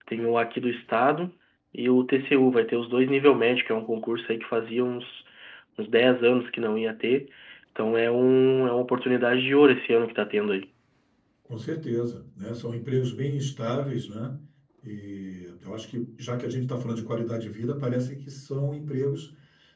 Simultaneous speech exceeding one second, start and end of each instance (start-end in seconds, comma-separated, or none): none